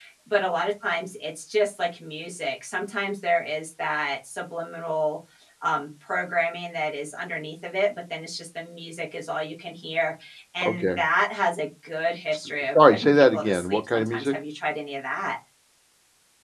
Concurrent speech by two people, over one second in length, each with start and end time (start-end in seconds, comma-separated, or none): 12.8-14.3